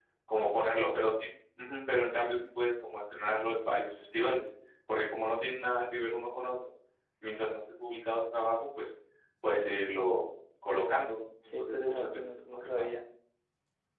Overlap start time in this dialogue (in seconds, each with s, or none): 11.5 s